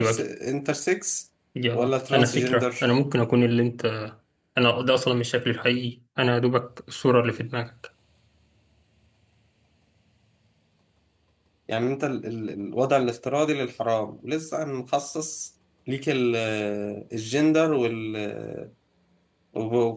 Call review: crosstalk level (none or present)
present